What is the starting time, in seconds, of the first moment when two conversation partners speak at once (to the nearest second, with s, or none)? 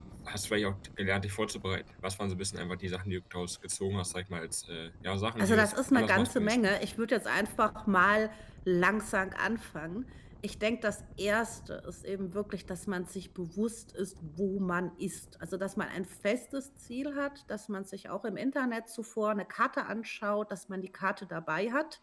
5 s